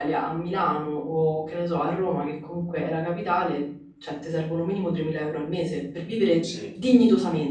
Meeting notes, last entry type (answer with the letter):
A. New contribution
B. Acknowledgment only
B